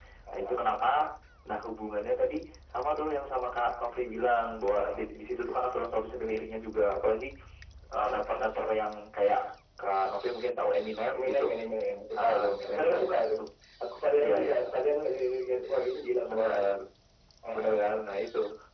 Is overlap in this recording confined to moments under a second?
No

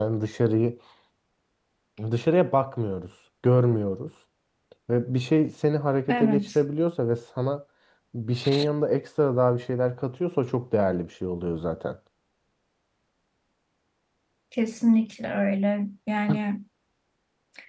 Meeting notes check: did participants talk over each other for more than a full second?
No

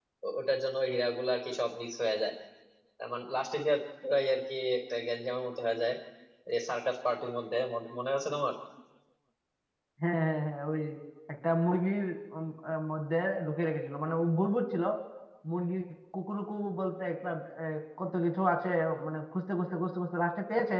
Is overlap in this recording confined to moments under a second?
Yes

